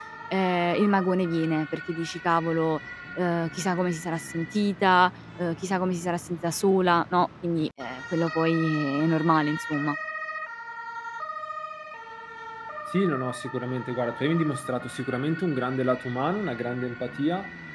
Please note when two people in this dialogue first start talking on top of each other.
none

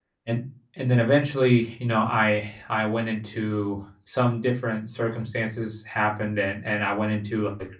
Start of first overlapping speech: none

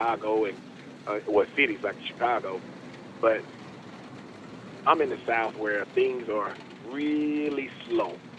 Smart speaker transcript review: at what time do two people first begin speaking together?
none

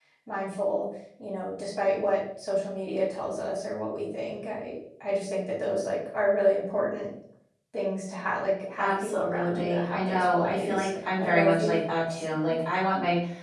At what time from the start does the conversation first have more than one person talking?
9 s

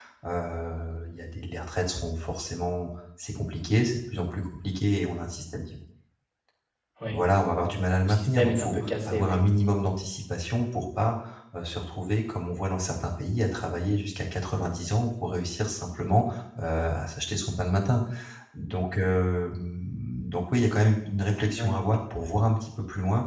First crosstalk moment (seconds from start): 8 s

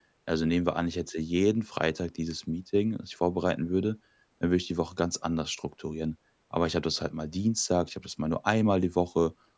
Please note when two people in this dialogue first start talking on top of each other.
none

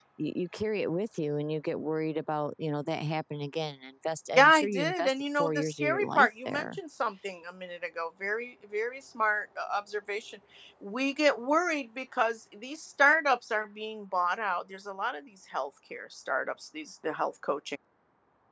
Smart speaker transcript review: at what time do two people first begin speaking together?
4 s

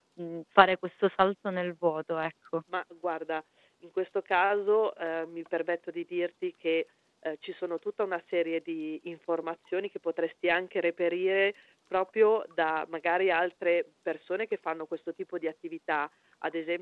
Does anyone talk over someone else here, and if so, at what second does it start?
none

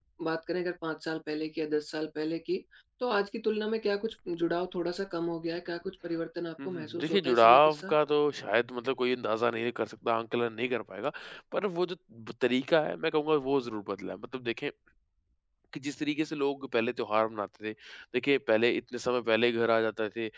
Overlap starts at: 7 s

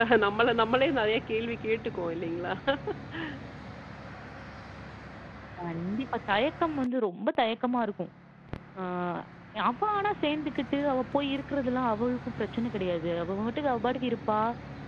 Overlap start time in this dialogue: none

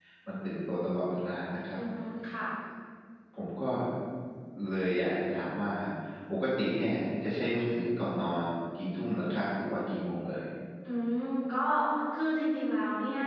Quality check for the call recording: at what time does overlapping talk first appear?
none

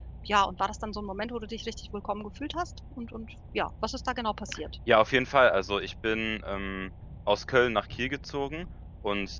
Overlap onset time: none

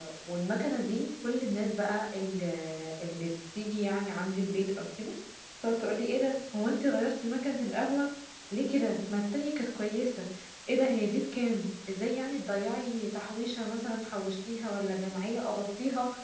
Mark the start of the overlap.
none

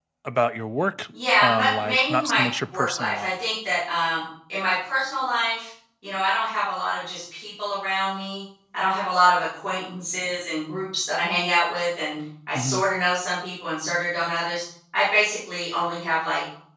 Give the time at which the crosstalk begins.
1 s

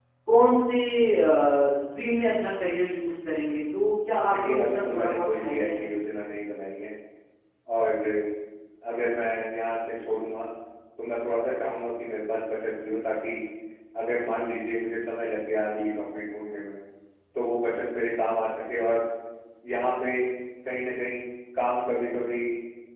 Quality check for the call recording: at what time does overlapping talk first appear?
4 s

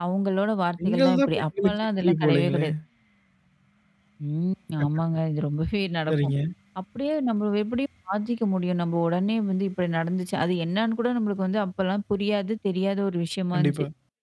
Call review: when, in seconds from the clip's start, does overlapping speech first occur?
1 s

